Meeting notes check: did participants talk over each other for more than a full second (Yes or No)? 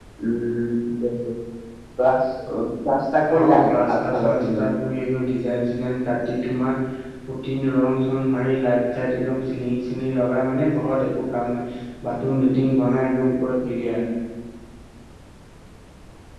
Yes